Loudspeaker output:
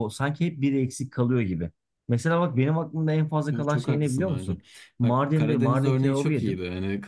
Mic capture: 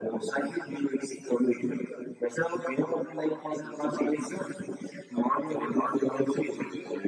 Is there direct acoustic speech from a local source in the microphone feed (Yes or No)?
No